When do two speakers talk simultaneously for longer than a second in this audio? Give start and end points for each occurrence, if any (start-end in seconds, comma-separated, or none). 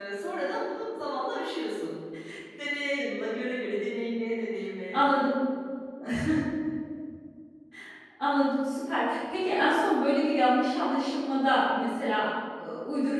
none